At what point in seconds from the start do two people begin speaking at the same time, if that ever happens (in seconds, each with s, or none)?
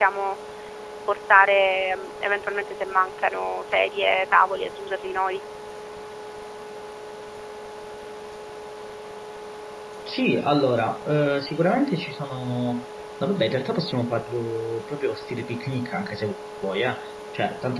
none